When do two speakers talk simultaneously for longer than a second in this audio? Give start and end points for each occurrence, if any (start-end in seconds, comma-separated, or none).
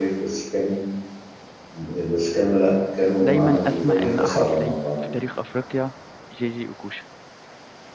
3.2-4.8